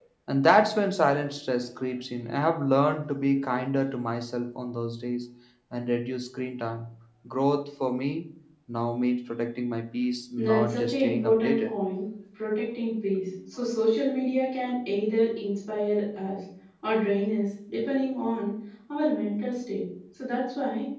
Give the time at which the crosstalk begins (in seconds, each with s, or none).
10.4 s